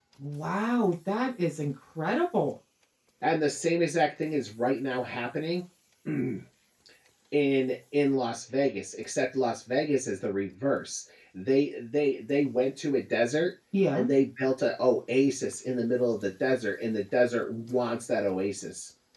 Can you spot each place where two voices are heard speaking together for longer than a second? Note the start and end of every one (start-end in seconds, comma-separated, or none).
none